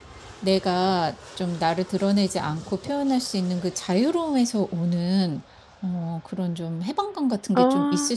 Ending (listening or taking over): listening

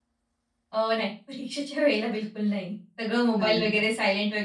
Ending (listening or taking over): listening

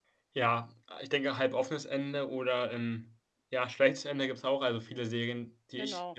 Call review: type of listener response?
listening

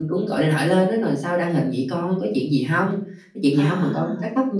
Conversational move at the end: listening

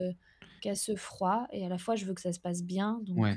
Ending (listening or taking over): taking over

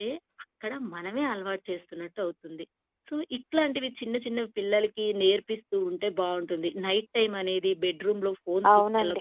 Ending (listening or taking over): listening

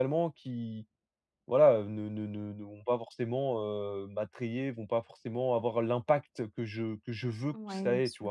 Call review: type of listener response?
taking over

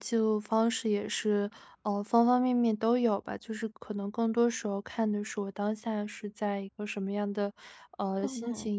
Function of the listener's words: listening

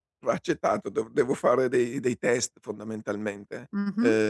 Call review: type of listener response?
taking over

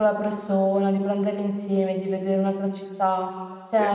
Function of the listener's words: listening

